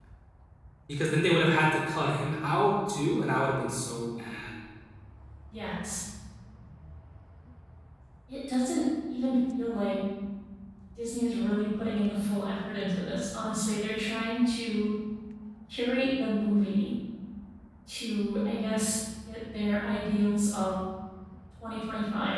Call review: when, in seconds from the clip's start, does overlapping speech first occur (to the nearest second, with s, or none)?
none